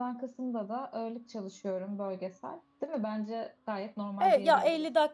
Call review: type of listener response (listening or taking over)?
taking over